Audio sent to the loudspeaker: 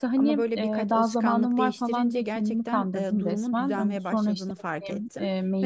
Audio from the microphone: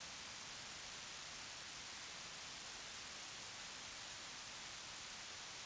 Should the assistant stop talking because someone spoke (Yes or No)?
No